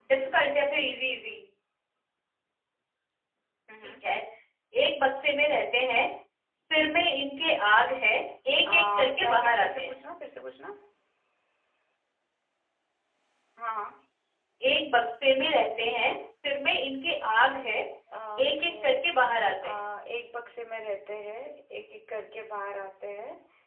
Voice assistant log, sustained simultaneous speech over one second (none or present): present